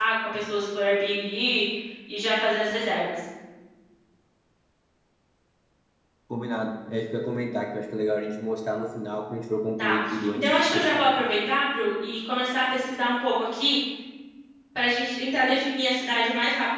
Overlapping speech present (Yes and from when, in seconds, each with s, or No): Yes, from 9.8 s